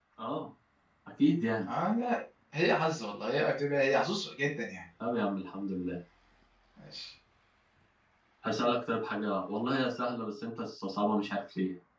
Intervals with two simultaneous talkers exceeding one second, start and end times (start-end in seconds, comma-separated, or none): none